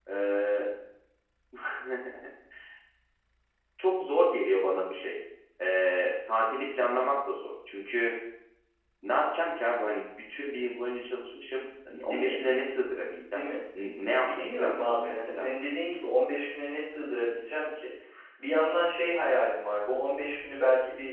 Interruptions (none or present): present